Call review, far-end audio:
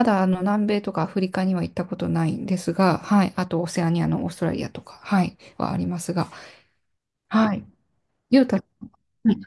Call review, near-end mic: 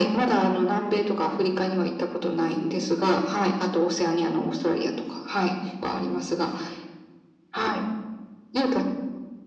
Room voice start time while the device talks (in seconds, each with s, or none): none